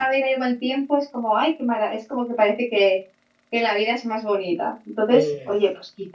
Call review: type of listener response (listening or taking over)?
listening